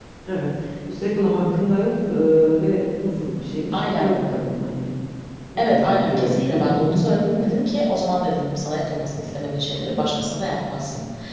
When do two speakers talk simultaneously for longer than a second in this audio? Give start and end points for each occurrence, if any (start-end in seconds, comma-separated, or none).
5.6-7.1